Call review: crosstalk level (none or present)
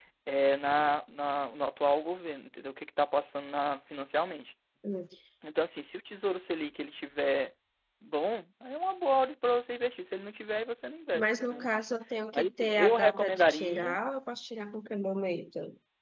present